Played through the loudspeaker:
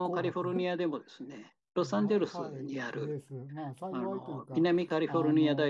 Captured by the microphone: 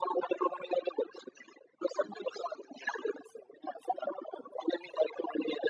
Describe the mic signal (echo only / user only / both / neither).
echo only